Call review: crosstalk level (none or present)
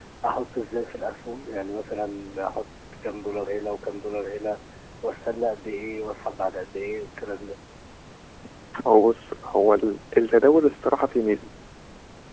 none